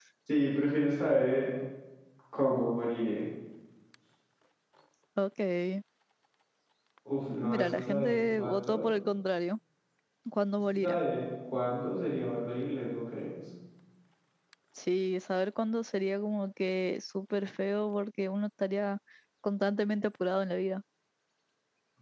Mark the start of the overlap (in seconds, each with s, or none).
7.4 s